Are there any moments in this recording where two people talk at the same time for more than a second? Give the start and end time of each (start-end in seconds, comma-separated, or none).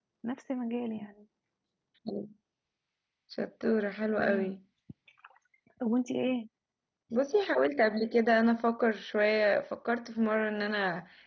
none